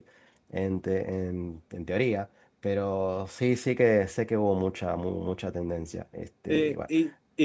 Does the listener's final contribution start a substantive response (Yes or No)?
Yes